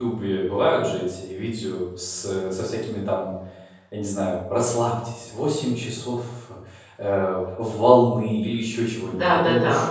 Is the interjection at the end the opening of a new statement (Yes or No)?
Yes